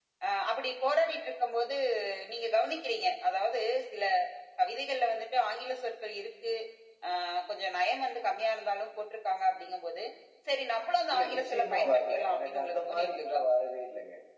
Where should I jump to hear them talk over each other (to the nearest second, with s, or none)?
11 s